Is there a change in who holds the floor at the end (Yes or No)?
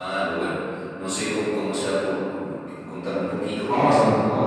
Yes